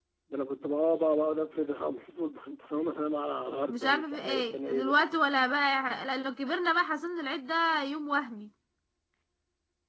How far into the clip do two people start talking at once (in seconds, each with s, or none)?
3.7 s